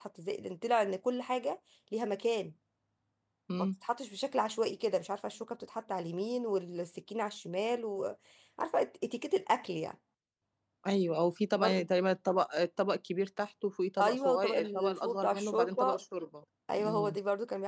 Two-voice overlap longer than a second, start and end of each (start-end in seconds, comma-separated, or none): 14.0-16.0